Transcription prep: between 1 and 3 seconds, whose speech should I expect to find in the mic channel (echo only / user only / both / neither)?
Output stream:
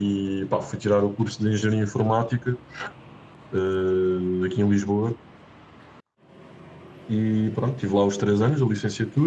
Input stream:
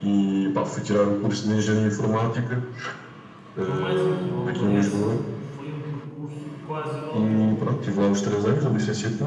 echo only